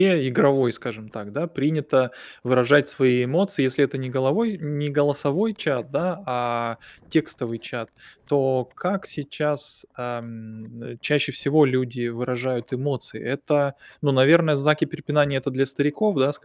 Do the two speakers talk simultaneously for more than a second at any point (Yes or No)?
No